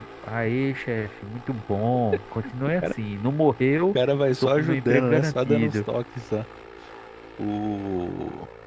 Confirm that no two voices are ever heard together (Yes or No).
No